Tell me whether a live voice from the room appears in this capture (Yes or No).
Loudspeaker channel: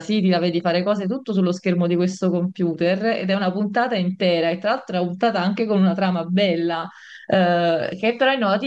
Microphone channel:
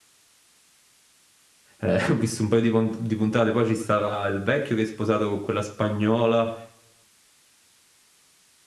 Yes